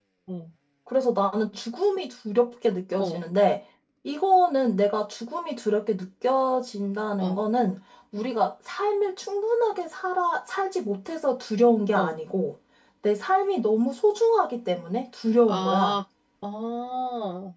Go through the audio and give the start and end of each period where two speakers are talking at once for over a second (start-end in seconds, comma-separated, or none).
none